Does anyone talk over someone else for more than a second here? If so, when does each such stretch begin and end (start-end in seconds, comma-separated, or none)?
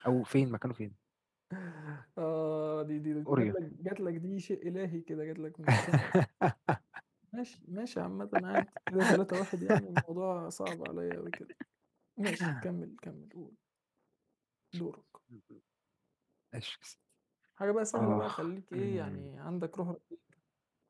17.9-19.3